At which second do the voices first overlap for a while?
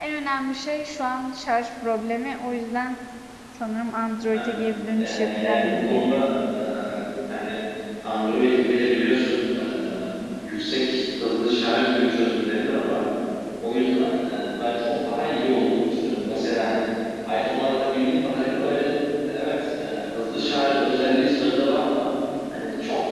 5.0 s

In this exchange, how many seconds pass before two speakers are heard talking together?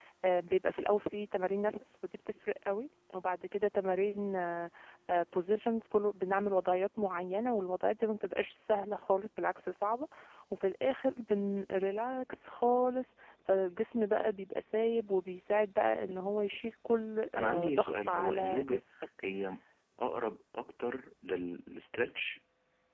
17.4 s

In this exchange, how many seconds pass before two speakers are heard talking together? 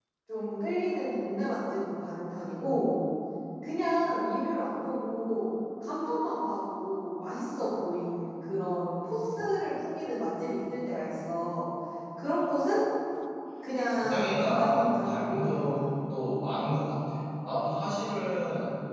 13.9 s

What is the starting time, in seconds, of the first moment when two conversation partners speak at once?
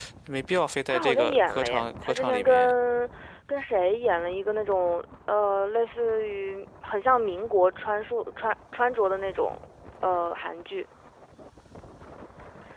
0.9 s

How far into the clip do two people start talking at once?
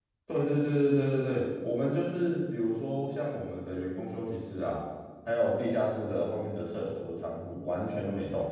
none

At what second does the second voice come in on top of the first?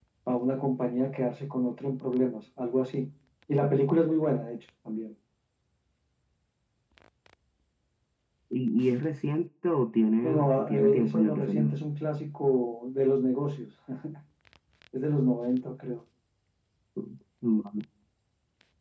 10.2 s

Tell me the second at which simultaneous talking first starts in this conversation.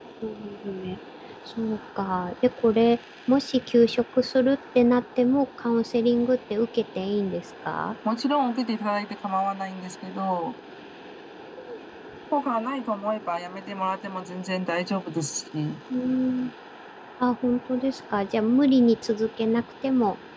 none

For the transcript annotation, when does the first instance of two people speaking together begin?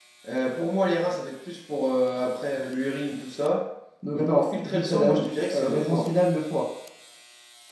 4.1 s

